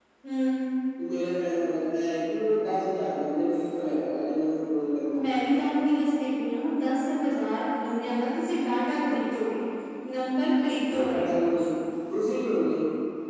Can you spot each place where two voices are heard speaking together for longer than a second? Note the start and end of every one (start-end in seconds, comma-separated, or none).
none